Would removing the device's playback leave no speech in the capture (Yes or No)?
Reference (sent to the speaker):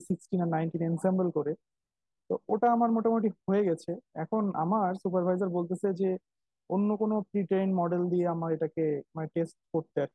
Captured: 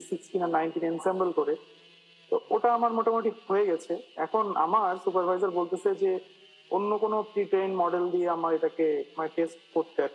Yes